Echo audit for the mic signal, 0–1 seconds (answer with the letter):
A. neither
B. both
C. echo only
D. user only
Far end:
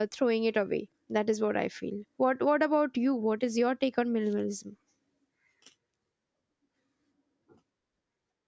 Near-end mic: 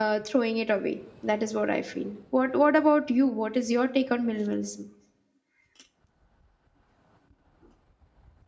C